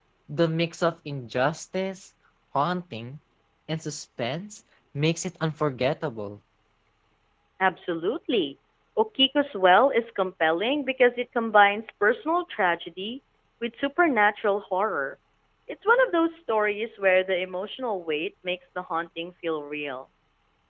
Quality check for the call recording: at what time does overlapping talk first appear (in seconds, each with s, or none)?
none